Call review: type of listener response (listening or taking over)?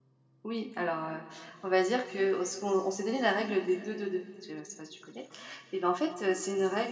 listening